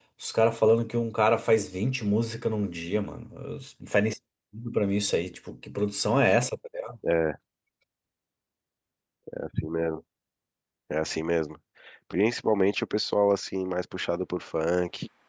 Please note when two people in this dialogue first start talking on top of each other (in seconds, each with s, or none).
none